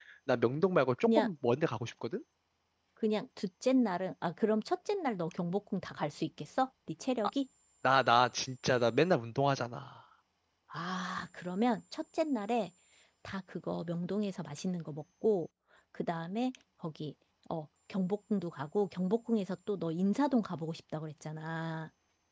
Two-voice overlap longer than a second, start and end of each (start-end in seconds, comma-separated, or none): none